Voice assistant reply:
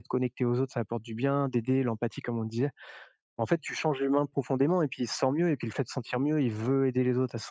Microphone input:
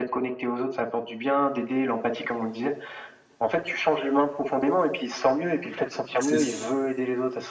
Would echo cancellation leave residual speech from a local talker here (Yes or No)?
Yes